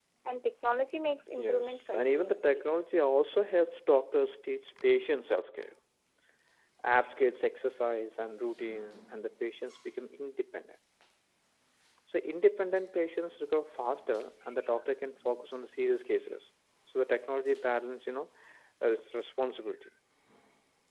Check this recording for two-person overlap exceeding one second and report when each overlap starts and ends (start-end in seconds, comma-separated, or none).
1.4-2.6